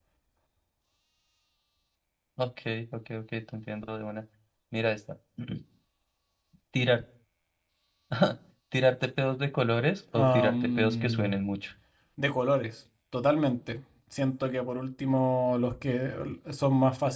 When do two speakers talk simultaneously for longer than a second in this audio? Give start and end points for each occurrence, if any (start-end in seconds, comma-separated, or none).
10.1-11.4